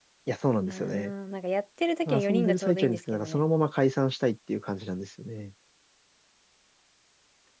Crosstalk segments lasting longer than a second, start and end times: 2.1-3.4

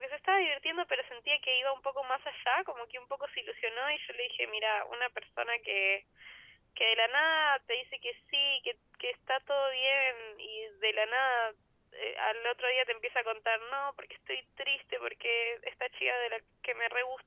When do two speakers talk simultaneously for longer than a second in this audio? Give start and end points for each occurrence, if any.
none

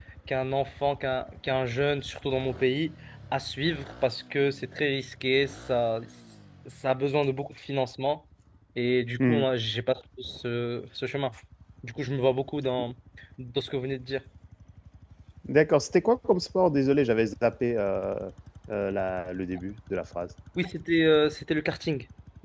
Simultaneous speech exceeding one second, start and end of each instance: none

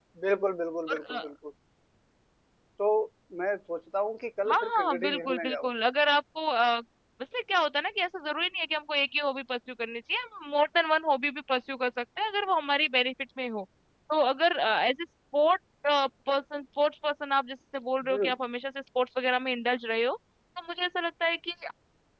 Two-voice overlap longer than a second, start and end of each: 4.5-5.7

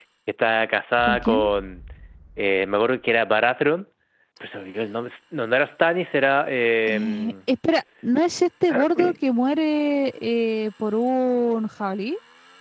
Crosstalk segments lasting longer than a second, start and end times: none

